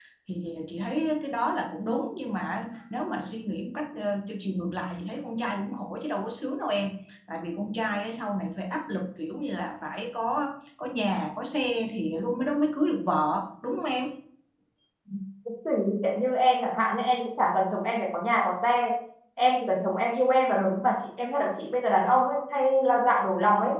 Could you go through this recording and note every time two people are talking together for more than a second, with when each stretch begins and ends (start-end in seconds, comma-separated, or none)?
none